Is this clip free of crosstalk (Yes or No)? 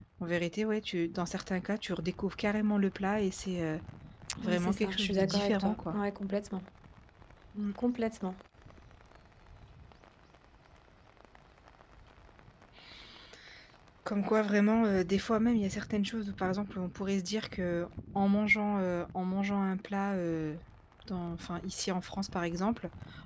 No